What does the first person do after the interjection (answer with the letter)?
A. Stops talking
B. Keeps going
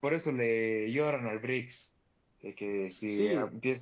B